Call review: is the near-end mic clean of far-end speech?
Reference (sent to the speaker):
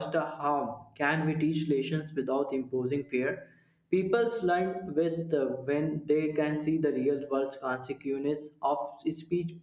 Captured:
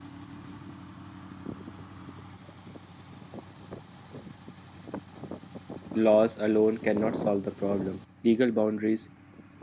Yes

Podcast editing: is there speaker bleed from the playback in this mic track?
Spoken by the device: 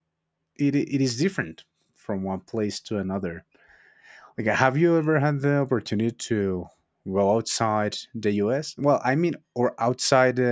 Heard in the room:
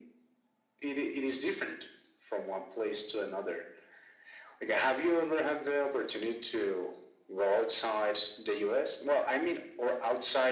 Yes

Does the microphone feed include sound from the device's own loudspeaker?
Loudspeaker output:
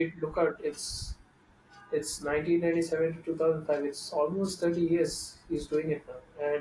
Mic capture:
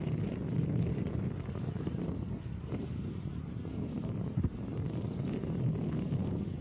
No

